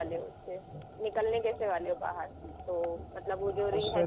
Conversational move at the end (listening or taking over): listening